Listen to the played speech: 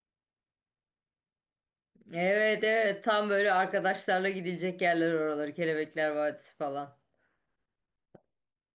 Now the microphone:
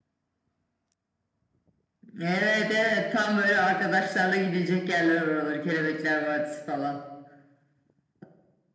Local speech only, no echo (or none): none